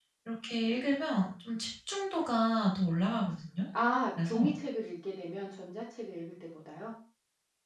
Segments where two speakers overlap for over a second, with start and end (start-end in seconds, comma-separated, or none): none